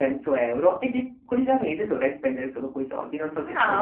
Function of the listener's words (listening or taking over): taking over